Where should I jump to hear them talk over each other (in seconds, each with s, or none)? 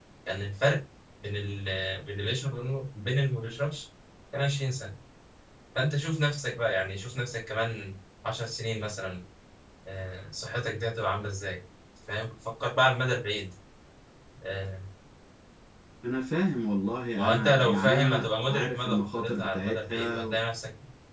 17.2 s